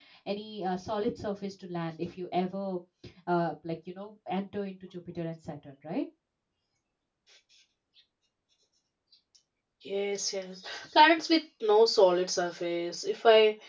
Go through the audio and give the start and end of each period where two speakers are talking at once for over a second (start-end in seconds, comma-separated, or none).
none